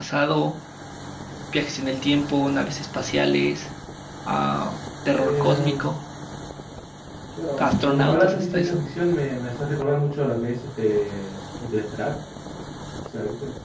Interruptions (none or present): present